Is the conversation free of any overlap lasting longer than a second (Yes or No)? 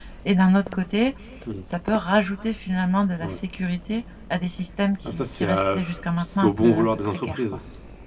No